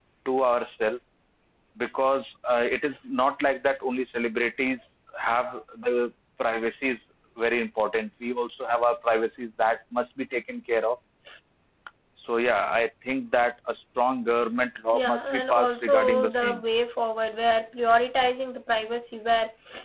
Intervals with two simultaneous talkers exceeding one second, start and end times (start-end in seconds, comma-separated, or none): 14.9-16.6